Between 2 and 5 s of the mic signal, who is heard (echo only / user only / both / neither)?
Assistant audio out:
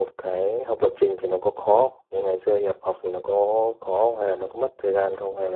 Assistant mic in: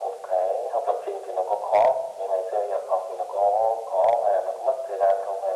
echo only